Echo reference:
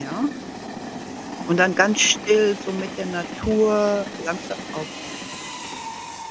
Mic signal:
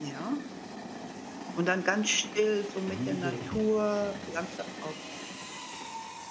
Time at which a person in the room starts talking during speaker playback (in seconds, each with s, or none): 2.9 s